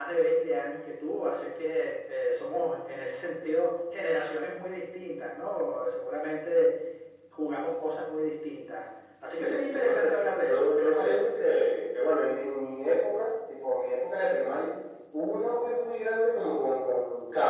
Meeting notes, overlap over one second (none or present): present